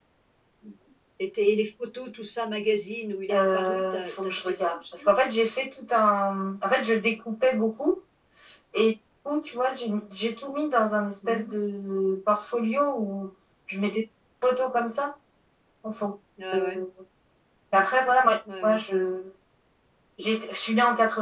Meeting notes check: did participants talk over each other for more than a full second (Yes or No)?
Yes